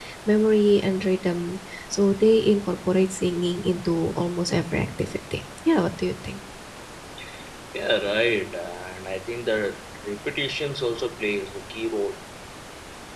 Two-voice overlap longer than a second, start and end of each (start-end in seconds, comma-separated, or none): none